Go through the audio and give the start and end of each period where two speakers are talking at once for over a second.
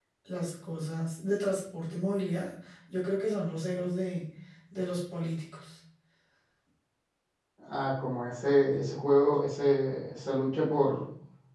none

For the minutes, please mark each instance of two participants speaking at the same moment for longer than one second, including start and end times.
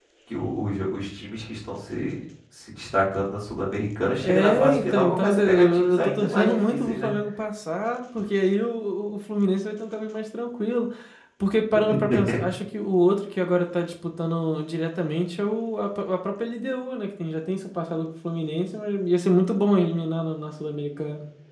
4.2-7.1

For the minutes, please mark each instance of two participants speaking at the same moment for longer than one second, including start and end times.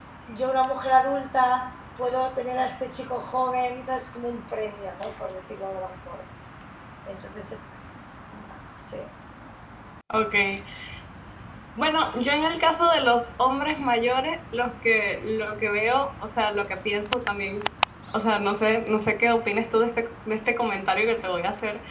none

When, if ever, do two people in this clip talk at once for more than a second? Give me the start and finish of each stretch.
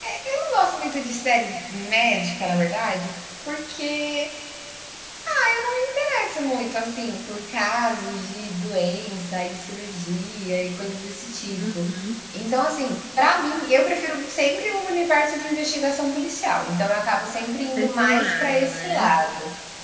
17.8-19.1

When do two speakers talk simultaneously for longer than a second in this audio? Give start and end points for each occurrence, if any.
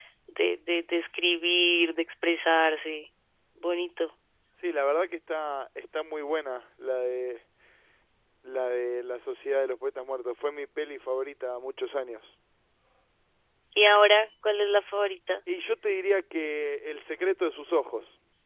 none

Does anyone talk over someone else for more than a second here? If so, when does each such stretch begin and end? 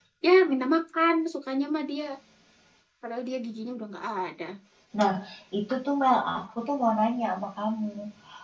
none

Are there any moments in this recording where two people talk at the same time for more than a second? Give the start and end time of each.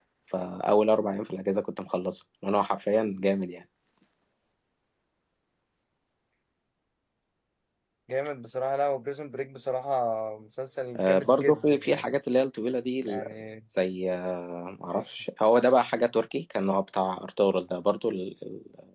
11.0-12.2

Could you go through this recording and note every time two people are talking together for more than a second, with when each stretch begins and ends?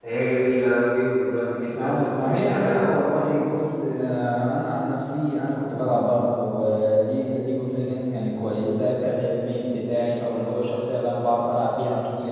1.8-3.4

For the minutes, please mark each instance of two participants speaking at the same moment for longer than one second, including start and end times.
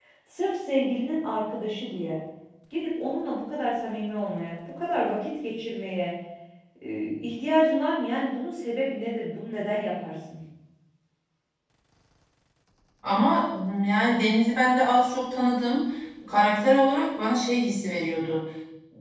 none

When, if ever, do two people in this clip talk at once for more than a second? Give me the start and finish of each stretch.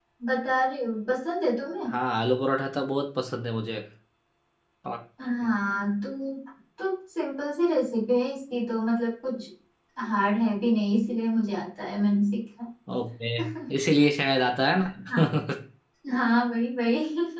none

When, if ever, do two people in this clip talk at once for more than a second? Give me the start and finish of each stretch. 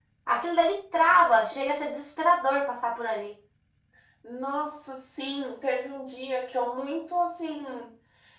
none

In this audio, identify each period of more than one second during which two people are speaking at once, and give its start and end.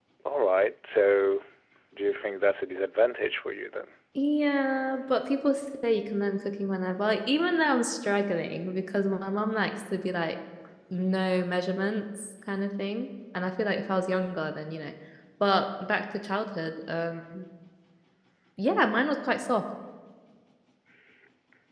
none

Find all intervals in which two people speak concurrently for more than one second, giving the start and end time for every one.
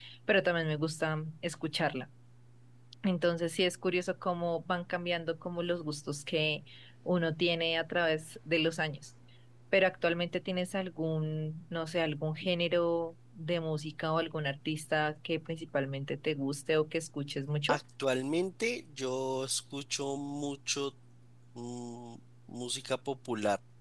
none

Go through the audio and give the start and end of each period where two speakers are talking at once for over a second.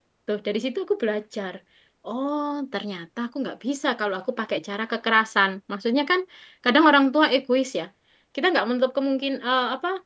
none

